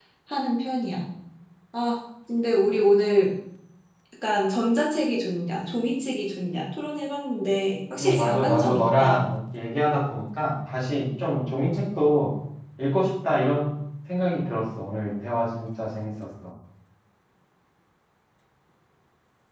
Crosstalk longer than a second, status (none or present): present